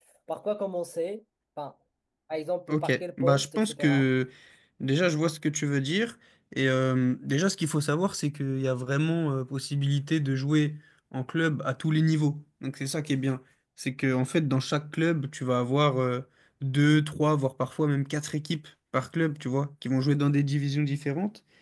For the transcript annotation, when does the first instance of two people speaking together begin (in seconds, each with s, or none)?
2.7 s